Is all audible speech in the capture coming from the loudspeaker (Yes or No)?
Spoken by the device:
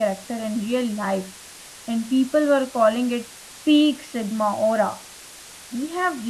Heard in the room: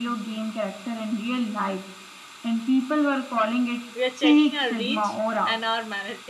No